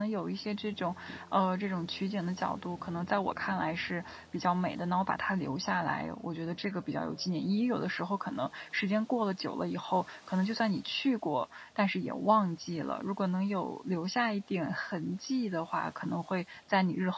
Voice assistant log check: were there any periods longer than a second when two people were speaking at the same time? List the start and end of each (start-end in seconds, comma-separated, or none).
none